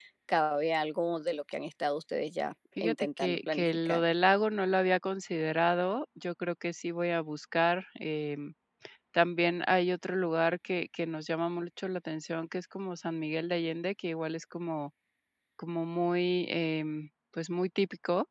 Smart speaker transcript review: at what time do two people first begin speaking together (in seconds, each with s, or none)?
2.8 s